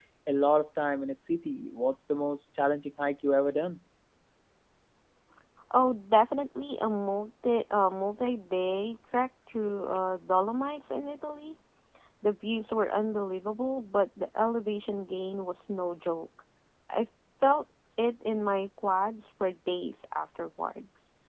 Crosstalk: none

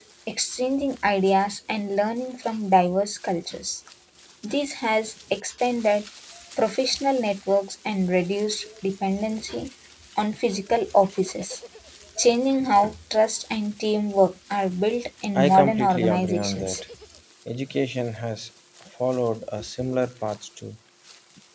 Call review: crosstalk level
present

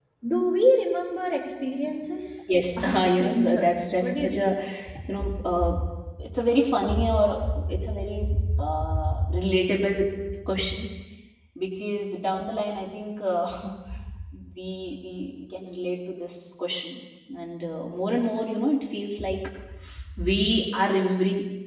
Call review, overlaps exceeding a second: present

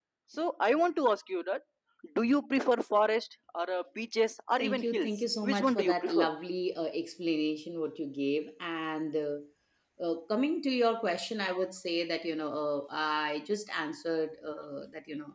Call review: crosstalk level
present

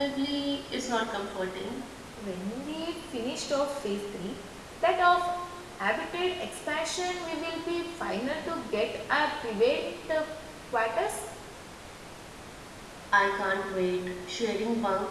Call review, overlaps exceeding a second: none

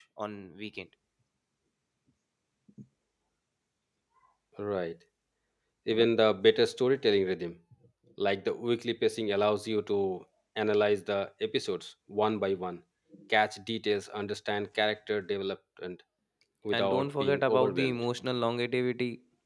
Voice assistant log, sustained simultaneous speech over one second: present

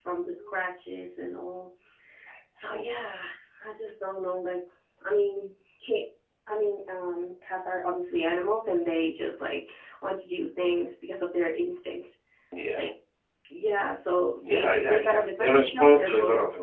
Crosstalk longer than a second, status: present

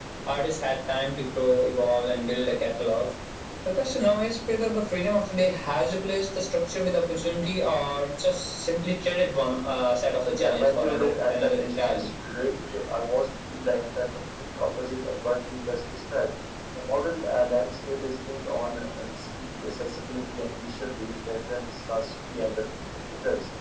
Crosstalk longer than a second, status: present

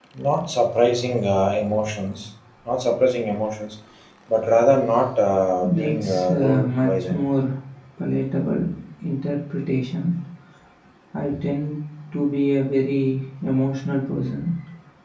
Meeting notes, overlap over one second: present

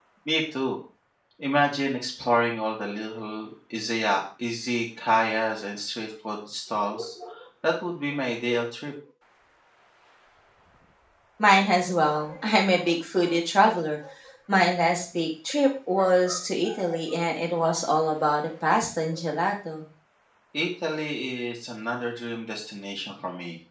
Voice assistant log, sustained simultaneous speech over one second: none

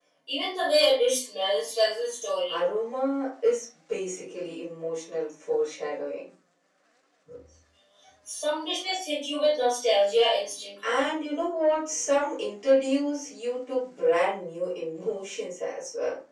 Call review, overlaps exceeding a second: none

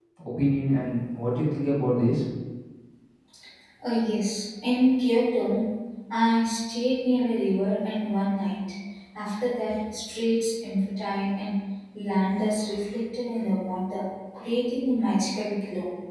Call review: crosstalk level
none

